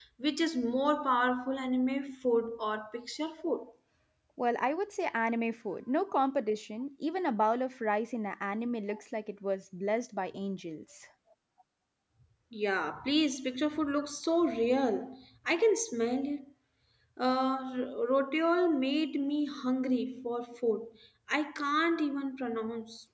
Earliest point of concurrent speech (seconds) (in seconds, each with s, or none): none